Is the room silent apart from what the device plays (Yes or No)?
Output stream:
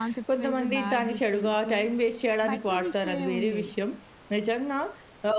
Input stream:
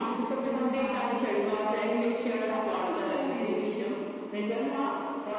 Yes